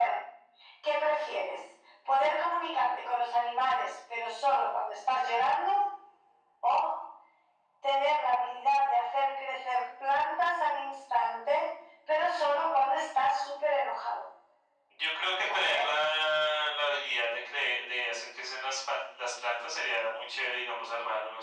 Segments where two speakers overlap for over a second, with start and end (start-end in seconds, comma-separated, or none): none